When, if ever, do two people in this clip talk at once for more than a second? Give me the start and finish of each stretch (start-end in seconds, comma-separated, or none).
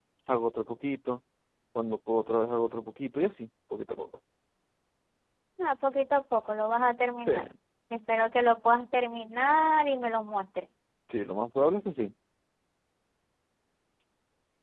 none